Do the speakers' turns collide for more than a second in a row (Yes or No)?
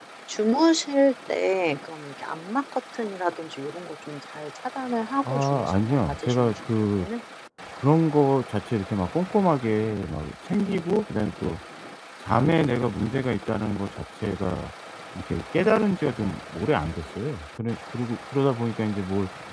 Yes